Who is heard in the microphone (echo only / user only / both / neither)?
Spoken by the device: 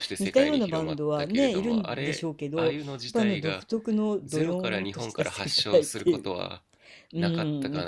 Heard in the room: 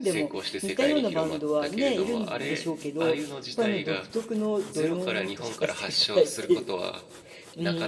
echo only